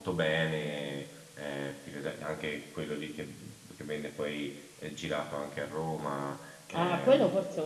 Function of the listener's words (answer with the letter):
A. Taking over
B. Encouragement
A